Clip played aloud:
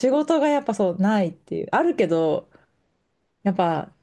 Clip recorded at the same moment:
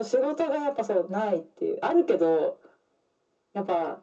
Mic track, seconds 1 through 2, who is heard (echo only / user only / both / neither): echo only